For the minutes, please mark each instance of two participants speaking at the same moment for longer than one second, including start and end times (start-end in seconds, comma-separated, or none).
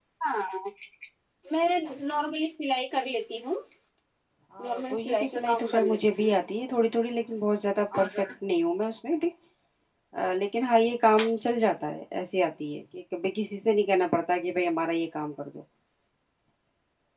4.6-6.3